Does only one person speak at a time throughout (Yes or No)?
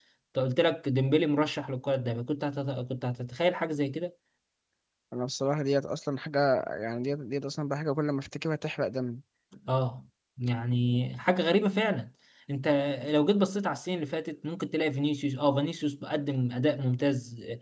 Yes